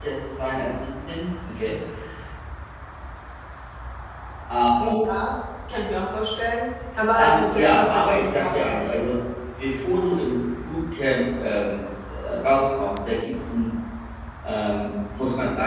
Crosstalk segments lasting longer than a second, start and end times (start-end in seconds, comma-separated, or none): 7.1-8.9